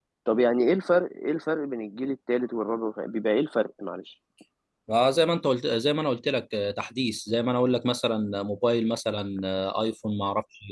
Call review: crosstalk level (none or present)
none